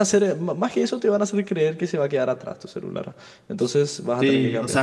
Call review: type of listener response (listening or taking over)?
taking over